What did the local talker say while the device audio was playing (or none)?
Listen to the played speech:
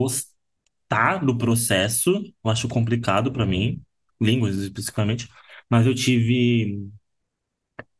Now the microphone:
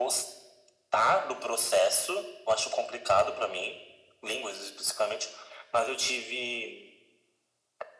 none